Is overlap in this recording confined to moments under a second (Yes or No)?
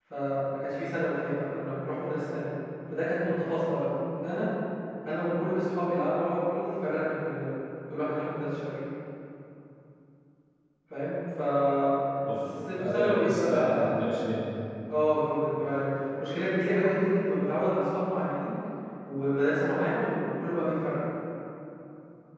No